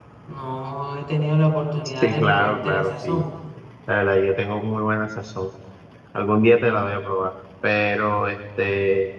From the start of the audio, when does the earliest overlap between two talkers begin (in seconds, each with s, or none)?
2.0 s